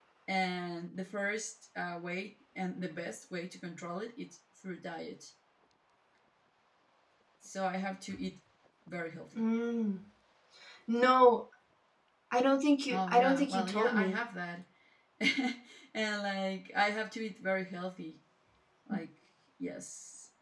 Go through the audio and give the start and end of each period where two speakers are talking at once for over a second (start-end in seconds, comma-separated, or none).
12.9-14.2